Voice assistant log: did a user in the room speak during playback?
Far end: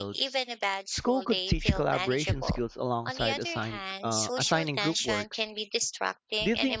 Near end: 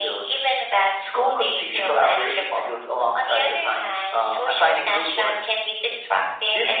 No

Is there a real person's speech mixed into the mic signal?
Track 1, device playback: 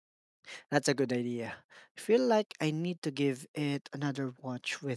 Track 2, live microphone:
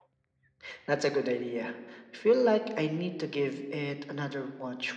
No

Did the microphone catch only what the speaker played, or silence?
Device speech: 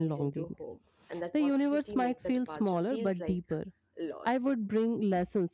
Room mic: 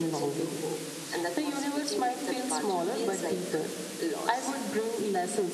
Yes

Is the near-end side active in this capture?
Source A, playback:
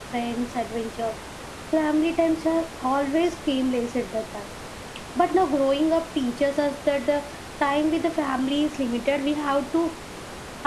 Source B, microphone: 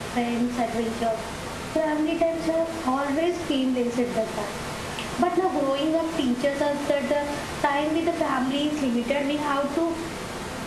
No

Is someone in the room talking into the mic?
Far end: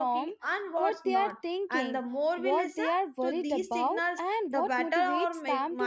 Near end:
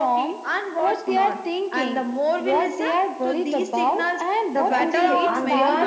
Yes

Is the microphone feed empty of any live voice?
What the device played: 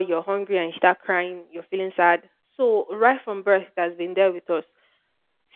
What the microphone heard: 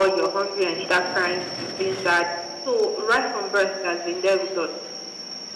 Yes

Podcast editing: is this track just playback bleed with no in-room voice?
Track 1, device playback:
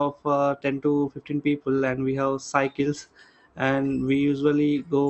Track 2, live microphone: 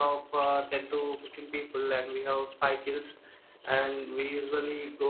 Yes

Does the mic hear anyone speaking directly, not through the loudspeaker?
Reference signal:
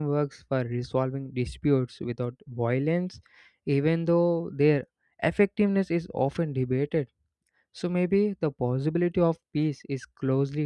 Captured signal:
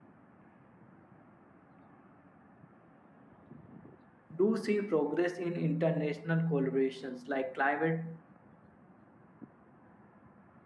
Yes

